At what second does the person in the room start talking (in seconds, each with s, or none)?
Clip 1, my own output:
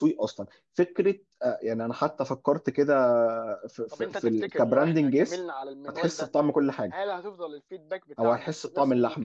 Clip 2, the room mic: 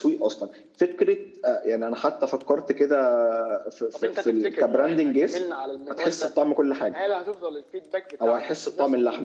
none